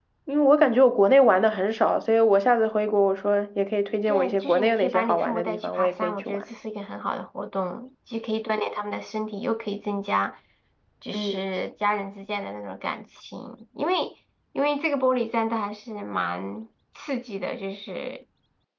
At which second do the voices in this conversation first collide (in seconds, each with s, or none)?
4.1 s